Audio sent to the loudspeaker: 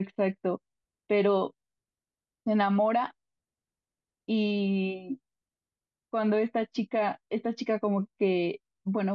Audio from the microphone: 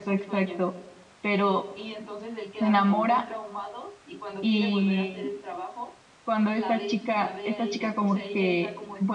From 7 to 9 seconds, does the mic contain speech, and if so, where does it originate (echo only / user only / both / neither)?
both